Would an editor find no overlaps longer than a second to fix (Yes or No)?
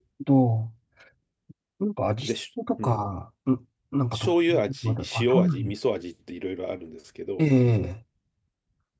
No